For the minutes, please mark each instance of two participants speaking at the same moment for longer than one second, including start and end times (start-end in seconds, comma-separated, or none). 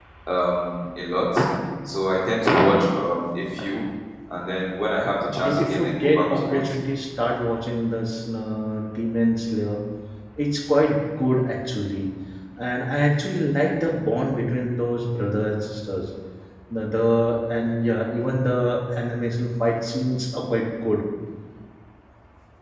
5.2-6.6